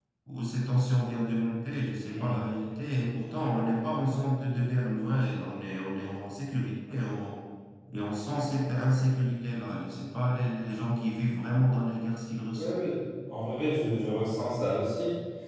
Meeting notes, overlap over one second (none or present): none